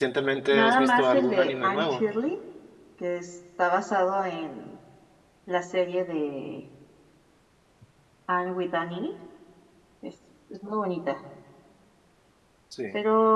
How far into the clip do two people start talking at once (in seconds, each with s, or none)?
0.5 s